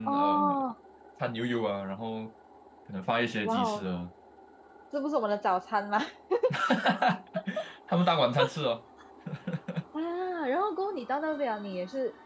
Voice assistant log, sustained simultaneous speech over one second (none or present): none